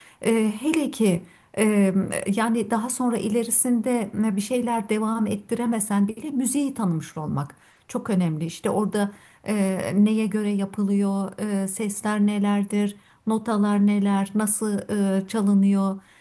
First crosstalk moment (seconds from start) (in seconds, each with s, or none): none